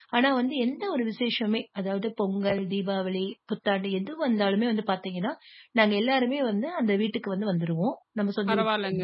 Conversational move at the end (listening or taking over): taking over